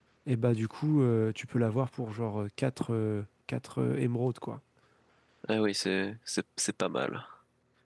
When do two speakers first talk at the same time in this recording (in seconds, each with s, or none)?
none